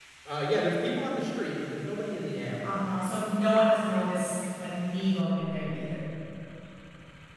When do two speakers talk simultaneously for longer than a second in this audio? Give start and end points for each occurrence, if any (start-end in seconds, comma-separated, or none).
none